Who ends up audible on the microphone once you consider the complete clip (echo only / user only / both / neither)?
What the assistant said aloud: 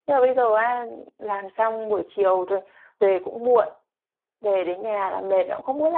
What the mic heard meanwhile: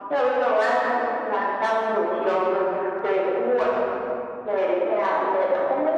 echo only